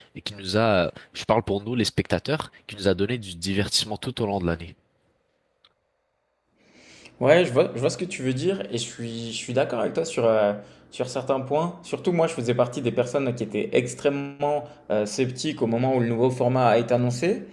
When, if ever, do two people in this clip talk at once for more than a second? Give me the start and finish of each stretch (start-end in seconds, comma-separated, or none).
none